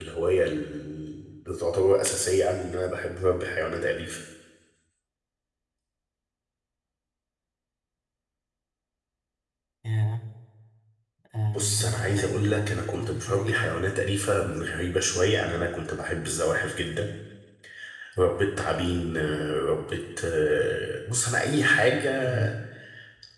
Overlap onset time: 11.6 s

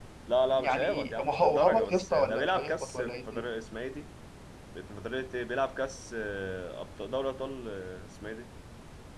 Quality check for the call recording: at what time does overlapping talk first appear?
0.6 s

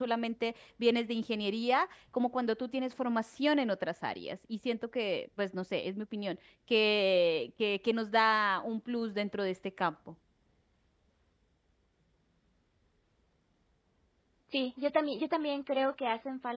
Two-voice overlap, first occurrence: none

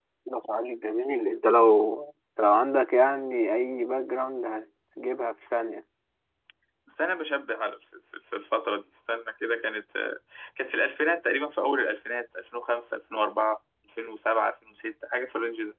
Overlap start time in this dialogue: none

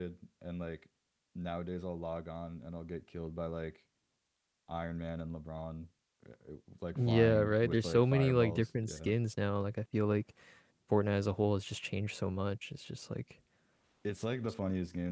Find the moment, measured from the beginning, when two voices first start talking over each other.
7.0 s

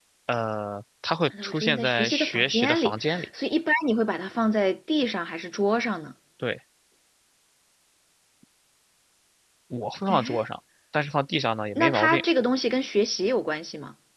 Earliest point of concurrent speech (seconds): 1.4 s

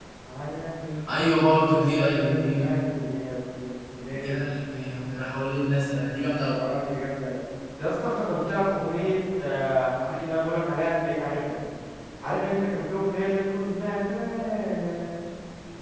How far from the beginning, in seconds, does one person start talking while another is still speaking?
1.1 s

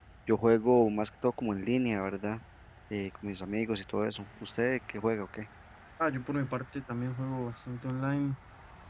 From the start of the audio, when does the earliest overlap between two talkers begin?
none

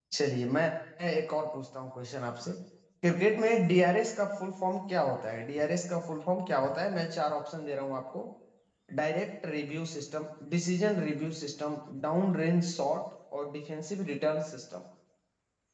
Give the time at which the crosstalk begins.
none

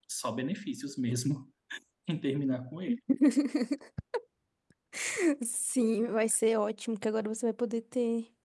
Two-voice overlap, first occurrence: none

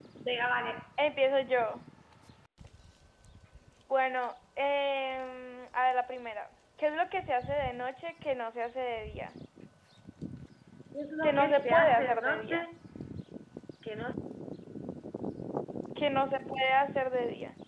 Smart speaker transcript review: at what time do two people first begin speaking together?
11.2 s

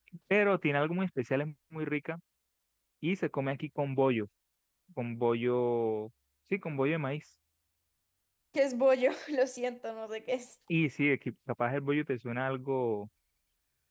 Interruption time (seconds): none

